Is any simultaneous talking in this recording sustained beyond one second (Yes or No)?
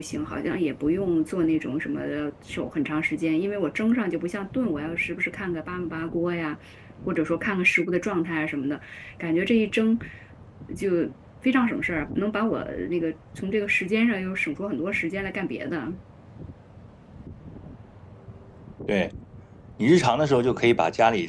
No